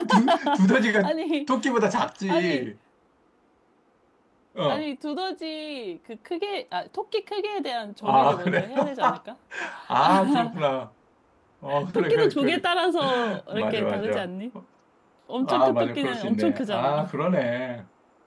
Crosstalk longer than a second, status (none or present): present